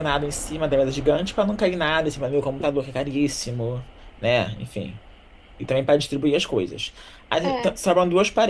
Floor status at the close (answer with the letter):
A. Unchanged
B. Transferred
A